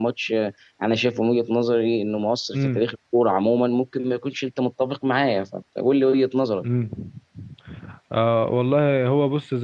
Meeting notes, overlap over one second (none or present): none